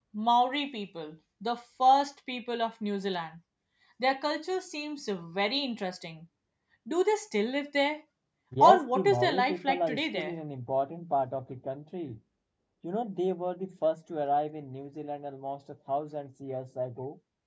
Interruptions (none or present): present